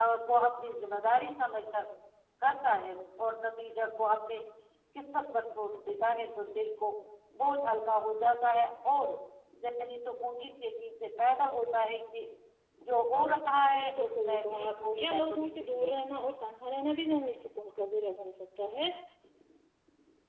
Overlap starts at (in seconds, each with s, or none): 13.7 s